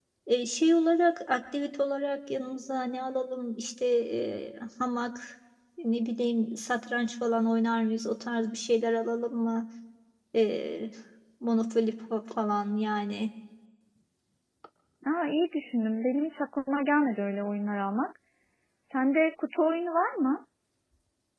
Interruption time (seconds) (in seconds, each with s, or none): none